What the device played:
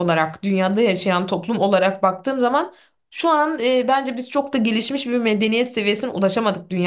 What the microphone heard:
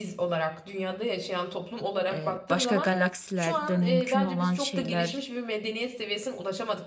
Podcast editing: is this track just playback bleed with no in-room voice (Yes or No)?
No